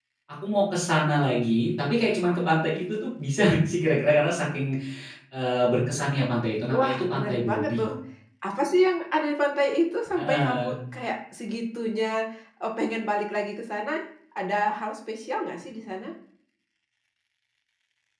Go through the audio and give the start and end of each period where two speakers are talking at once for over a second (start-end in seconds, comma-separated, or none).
6.7-7.9